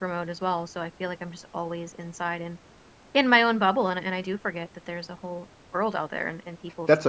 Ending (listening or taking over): taking over